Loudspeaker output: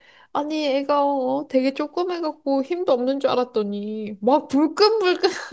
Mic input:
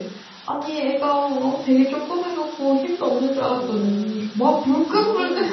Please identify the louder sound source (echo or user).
echo